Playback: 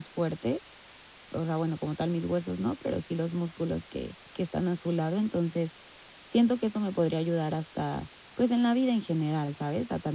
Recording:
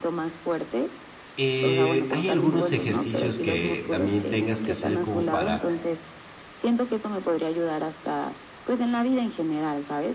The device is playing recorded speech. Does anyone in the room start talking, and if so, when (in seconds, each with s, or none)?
1.4 s